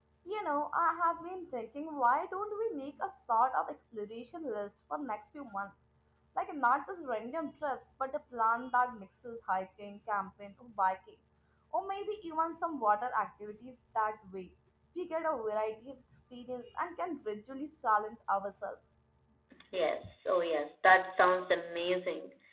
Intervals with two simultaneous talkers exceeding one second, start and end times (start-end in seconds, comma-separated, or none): none